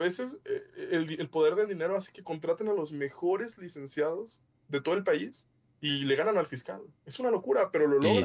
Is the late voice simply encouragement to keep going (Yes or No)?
No